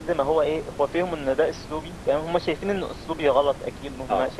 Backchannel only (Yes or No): Yes